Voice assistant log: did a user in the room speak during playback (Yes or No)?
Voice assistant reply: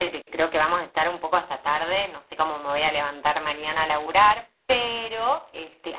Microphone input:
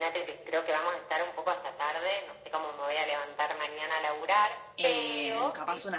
Yes